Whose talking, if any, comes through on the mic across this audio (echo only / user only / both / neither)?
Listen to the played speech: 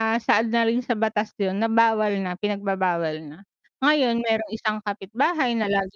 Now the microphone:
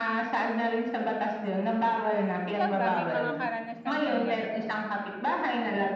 both